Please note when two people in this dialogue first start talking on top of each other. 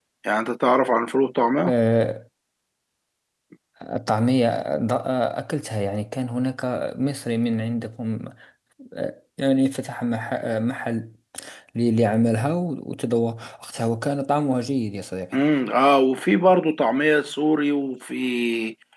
none

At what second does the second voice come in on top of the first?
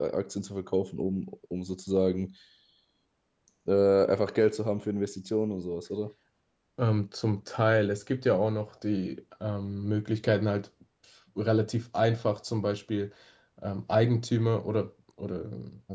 none

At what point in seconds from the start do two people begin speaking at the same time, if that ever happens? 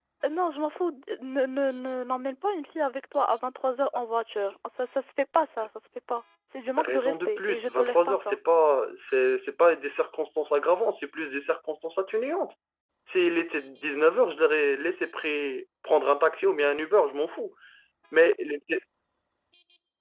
7 s

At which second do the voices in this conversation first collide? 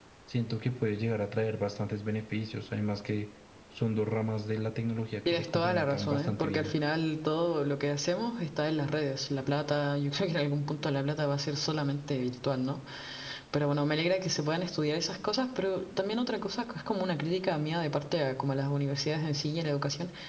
5 s

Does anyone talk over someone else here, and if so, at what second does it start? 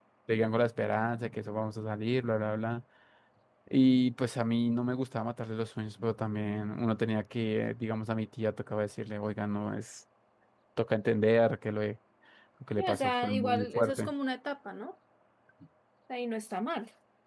13 s

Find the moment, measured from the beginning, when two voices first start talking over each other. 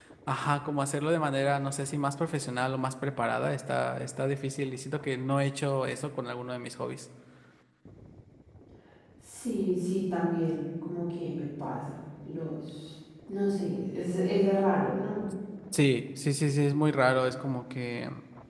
none

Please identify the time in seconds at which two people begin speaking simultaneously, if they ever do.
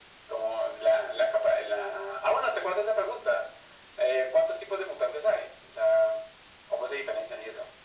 none

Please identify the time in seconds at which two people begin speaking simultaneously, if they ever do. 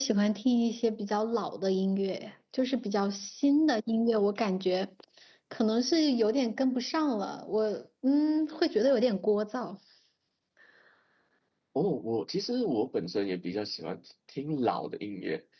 none

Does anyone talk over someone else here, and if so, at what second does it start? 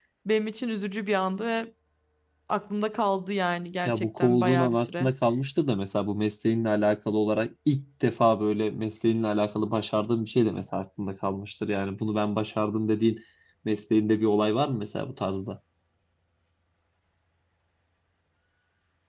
4 s

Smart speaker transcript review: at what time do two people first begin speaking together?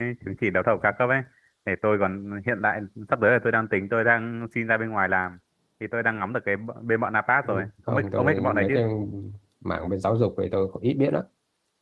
7 s

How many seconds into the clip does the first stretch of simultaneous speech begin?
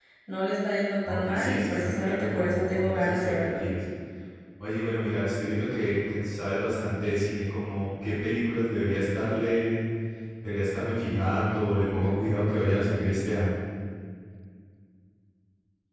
1 s

